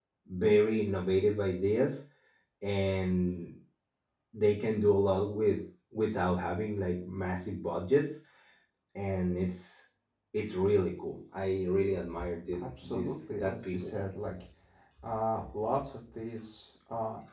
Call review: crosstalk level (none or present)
present